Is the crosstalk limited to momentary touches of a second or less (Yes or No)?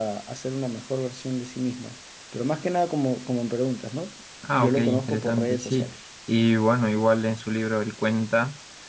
No